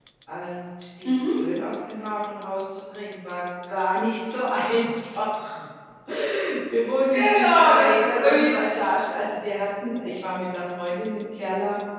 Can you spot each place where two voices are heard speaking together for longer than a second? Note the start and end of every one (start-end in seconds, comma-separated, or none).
7.1-8.5